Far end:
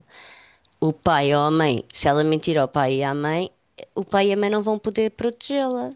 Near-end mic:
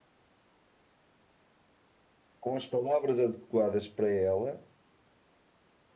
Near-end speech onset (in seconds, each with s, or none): 2.4 s